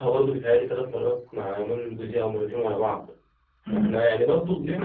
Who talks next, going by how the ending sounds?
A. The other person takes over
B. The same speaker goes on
B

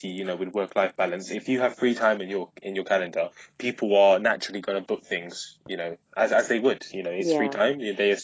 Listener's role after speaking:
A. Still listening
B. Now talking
A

